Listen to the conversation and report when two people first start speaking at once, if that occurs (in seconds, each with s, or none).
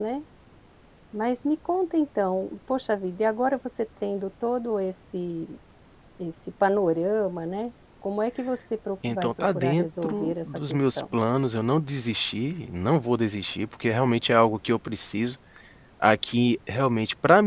9.0 s